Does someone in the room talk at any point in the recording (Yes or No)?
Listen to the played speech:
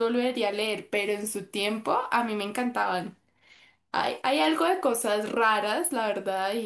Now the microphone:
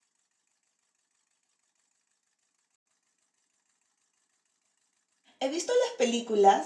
Yes